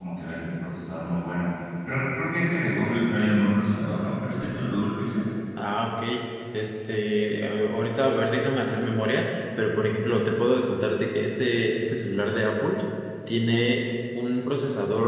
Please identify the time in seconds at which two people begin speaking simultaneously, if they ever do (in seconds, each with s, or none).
none